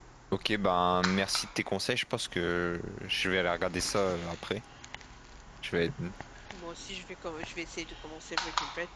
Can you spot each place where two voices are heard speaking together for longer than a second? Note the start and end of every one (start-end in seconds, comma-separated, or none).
none